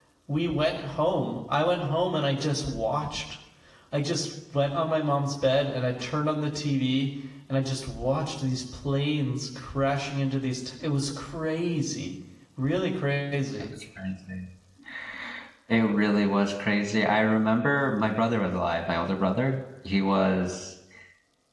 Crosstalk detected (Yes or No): No